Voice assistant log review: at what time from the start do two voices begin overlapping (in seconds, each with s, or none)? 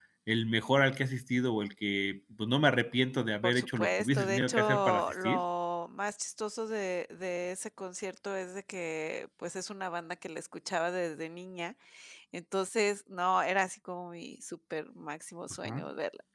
3.4 s